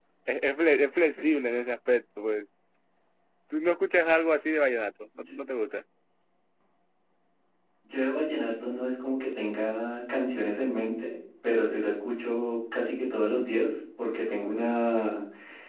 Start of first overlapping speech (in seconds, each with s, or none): none